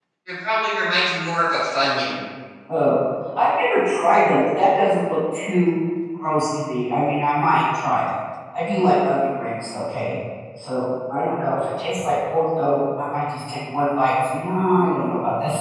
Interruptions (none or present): none